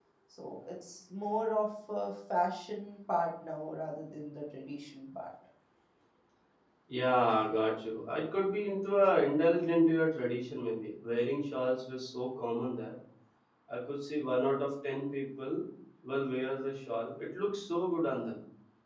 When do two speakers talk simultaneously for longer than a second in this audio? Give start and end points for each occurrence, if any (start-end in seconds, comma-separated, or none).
none